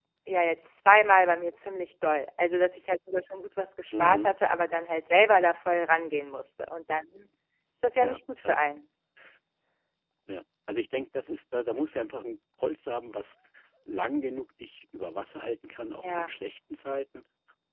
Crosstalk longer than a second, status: none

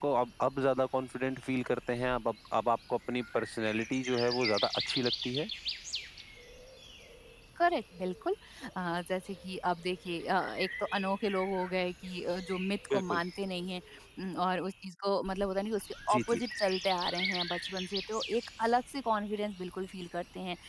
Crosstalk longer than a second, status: none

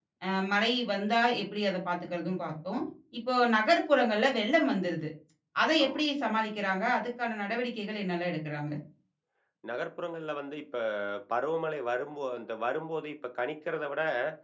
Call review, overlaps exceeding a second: none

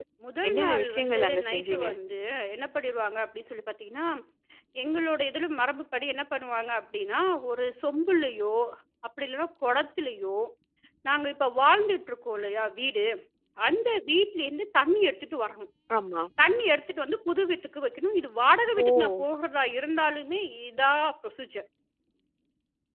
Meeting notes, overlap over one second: present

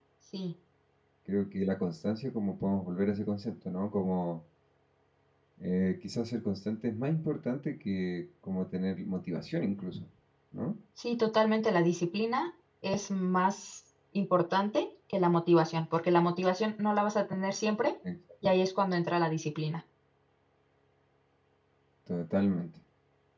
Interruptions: none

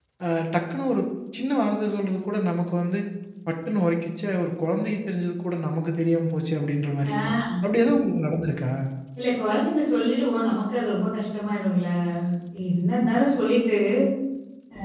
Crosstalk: none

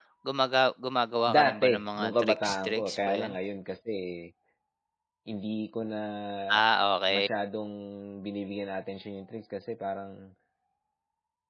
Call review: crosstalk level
present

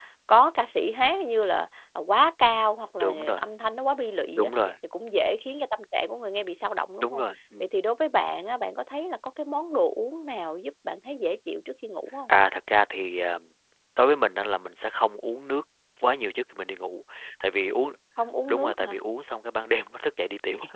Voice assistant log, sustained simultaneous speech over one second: none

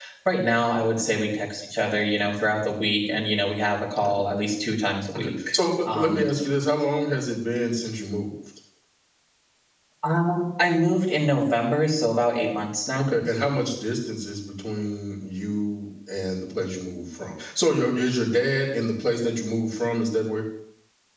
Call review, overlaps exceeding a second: none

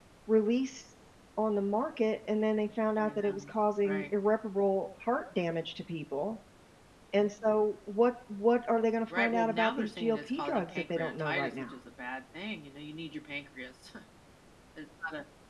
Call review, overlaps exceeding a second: present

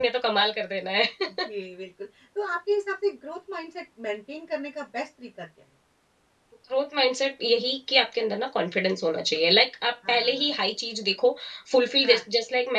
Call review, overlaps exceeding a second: none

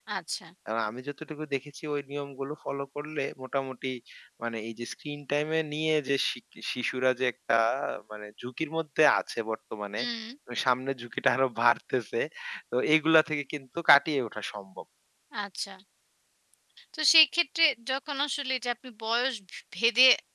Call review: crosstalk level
none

